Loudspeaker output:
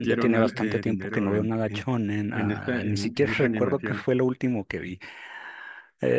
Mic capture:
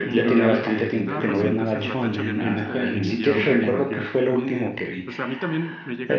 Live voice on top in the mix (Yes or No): No